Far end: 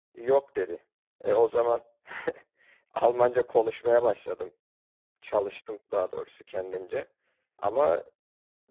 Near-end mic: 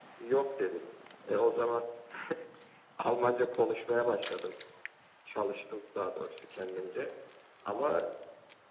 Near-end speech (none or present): none